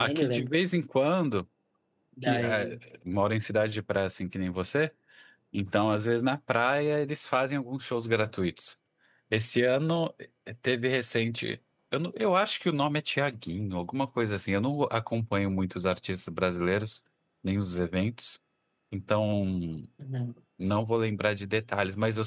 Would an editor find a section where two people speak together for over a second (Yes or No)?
No